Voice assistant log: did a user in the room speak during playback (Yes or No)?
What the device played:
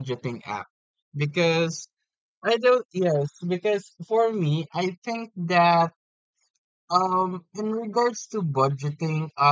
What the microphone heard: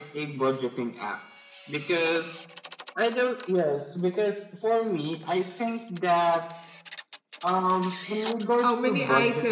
Yes